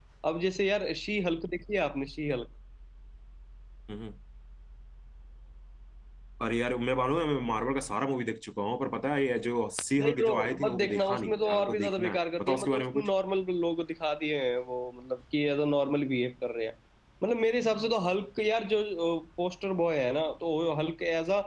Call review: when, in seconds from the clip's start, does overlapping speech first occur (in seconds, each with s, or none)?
10.0 s